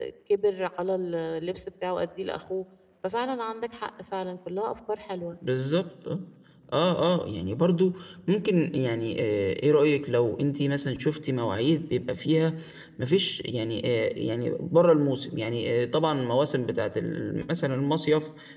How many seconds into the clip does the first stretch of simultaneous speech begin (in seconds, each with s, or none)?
none